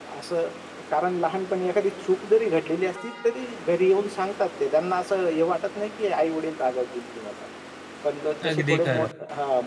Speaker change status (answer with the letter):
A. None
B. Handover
A